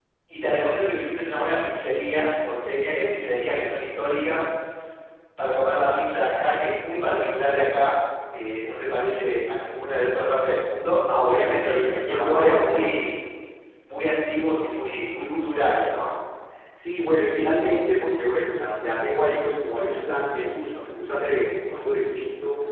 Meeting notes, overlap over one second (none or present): present